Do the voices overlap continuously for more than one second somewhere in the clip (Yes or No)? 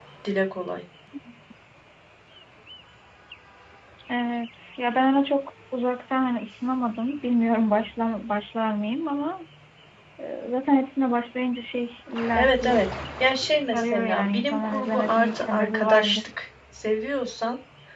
Yes